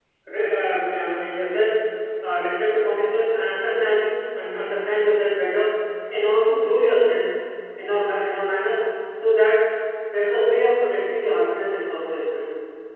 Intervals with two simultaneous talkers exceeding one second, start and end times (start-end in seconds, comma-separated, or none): none